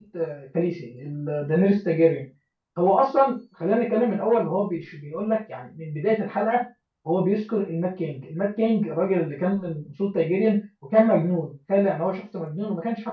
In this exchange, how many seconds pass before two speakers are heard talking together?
none

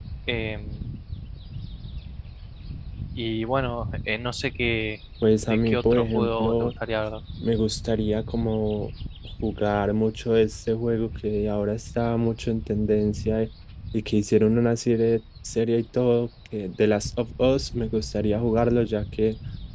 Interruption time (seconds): 5.5 s

